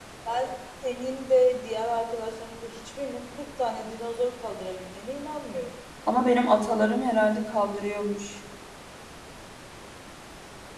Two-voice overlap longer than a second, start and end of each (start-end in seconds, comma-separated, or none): none